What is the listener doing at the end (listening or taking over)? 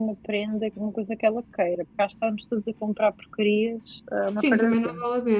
taking over